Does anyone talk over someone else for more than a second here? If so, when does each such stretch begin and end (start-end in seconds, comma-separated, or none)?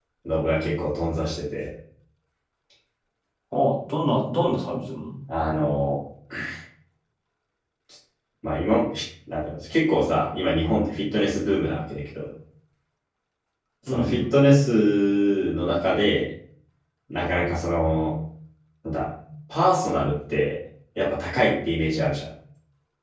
none